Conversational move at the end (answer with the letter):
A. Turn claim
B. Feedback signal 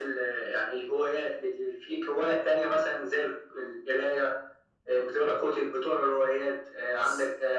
B